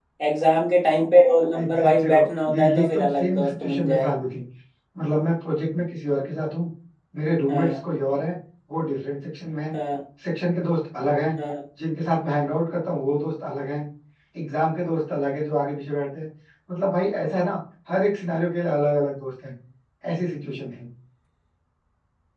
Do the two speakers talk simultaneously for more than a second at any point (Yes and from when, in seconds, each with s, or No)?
Yes, from 1.6 s